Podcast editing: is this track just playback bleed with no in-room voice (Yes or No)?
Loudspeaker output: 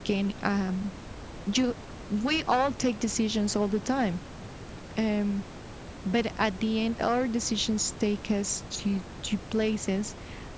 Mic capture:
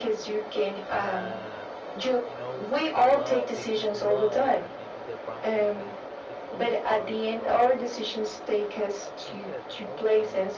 No